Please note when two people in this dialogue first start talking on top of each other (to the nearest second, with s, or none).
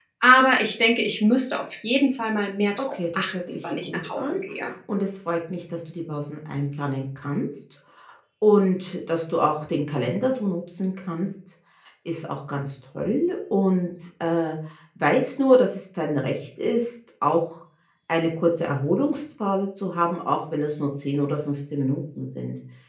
3 s